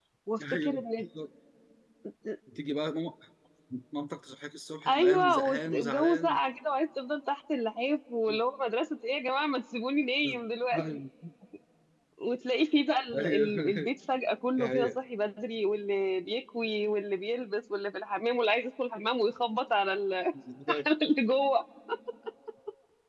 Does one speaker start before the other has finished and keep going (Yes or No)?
Yes